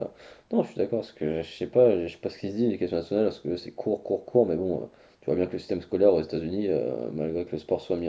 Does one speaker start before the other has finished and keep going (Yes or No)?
No